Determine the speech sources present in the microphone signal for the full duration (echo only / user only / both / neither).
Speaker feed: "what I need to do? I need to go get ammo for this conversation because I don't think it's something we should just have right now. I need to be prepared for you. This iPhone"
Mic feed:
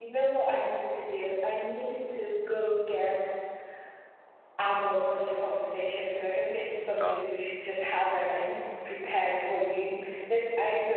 both